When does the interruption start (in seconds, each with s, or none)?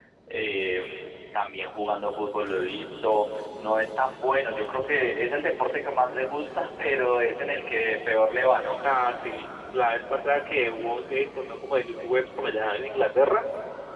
none